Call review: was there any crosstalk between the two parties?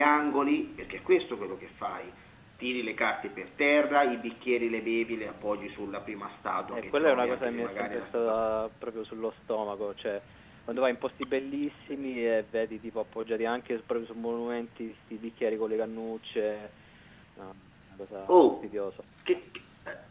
Yes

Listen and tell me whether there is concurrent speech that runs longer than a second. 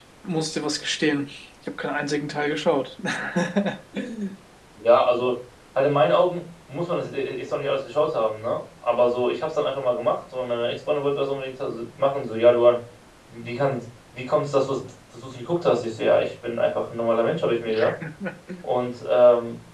No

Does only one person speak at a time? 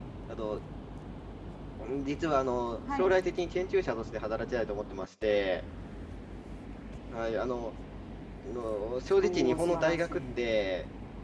No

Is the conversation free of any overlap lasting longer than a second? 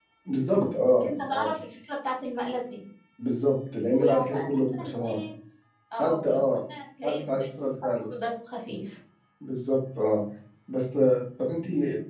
No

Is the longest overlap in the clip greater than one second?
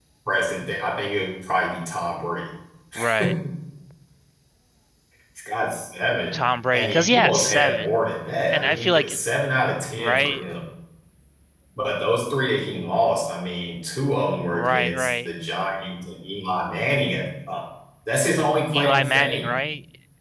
Yes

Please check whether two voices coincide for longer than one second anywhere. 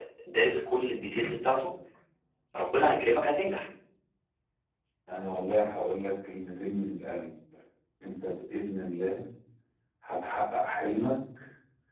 No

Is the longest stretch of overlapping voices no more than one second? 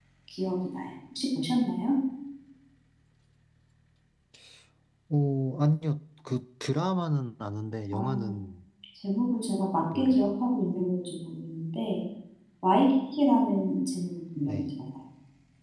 Yes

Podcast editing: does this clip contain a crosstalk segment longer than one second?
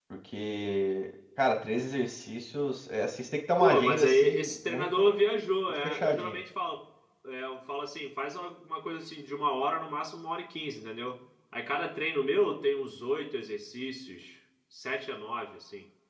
Yes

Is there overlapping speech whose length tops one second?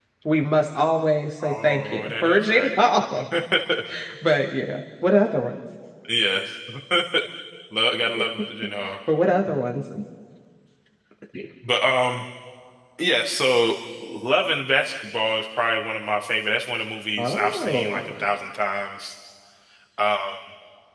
Yes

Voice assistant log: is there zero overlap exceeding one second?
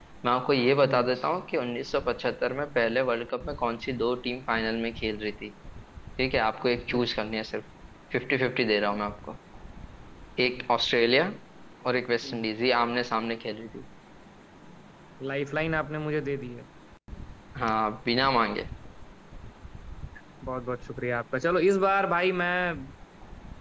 Yes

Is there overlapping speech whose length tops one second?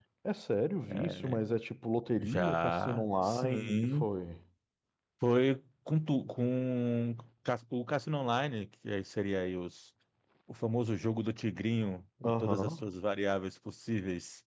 Yes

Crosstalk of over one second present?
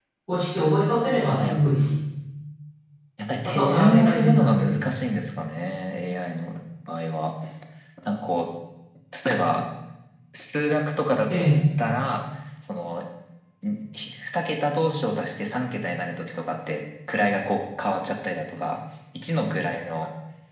Yes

